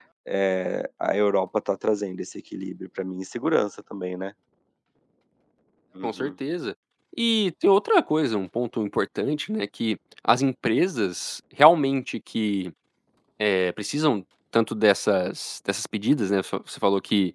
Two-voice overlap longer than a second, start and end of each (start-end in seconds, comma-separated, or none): none